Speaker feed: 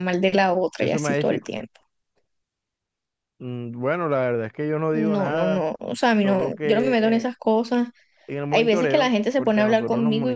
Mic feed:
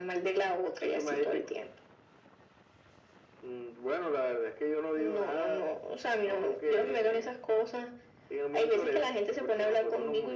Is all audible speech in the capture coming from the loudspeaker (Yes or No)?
Yes